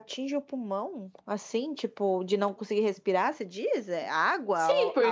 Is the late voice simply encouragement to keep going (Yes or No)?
No